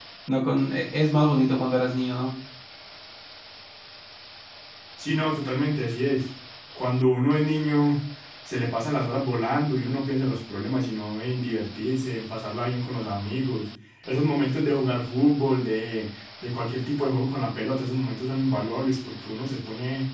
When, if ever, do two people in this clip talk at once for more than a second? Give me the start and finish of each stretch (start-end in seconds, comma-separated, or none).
none